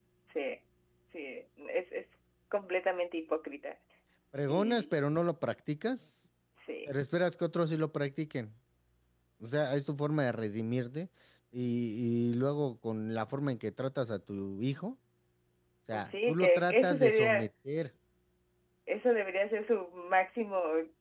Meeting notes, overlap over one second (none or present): present